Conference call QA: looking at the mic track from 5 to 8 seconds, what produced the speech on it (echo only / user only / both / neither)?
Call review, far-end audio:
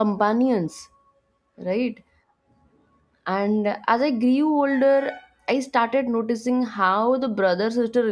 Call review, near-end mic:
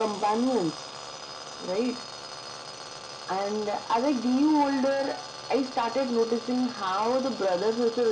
echo only